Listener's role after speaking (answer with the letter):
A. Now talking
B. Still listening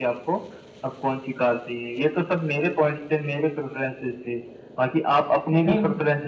B